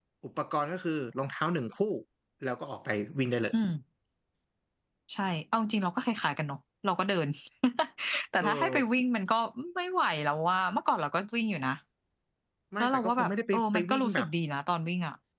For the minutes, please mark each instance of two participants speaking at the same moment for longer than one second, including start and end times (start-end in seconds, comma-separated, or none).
12.8-14.3